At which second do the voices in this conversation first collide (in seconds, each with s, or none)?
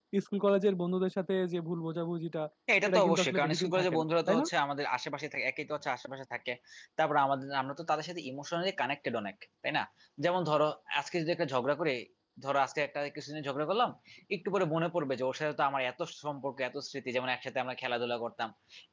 2.9 s